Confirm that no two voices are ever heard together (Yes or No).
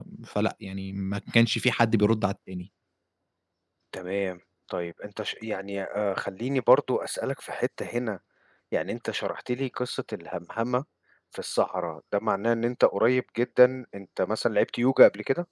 Yes